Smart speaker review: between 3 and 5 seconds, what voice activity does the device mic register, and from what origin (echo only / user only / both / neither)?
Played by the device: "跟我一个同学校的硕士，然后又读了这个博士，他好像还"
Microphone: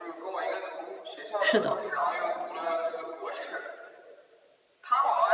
echo only